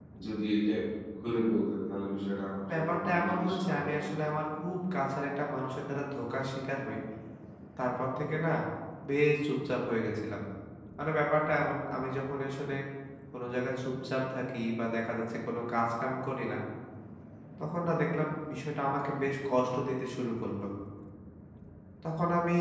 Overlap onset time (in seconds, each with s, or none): 2.7 s